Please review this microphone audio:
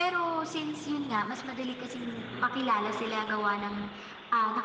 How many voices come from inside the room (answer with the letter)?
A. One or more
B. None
B